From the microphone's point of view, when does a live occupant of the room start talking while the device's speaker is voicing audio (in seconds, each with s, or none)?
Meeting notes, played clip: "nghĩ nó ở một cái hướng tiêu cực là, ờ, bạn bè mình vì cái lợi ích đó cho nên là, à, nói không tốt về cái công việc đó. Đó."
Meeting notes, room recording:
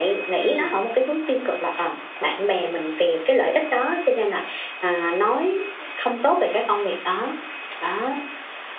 0.4 s